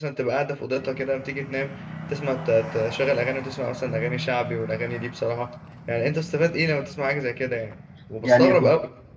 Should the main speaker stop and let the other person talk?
Yes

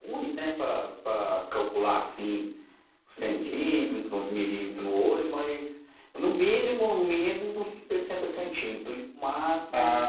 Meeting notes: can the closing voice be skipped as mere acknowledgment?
No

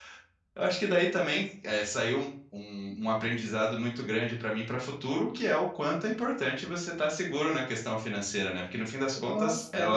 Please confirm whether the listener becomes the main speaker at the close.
No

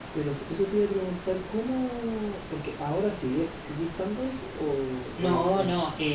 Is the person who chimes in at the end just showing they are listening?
No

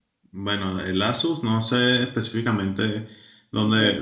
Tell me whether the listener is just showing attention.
Yes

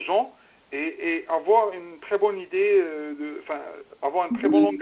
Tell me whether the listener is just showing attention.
No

